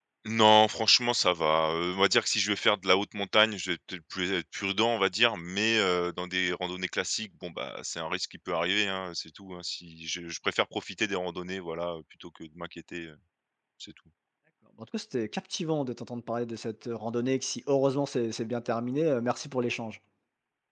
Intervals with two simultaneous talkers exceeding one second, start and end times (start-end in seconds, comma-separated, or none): none